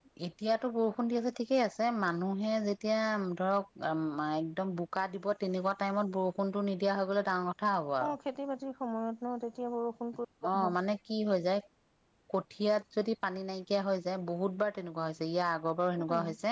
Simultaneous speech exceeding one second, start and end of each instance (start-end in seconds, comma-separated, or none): none